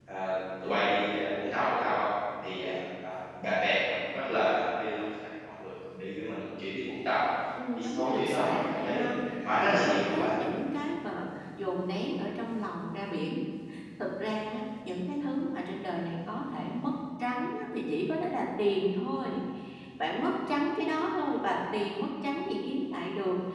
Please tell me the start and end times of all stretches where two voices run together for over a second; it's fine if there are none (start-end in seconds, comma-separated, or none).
7.8-10.3